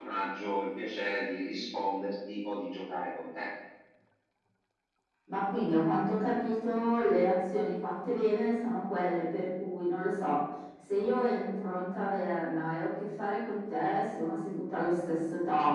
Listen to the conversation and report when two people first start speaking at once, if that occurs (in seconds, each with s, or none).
none